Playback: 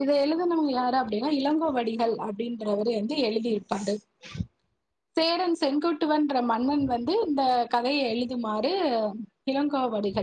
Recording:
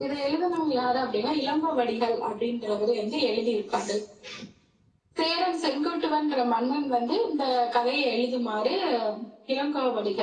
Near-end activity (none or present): none